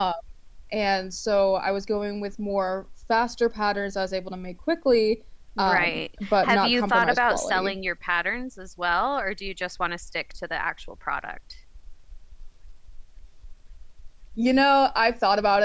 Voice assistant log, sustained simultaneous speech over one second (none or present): present